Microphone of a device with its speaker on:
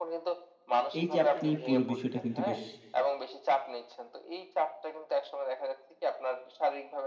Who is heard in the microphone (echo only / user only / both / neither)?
both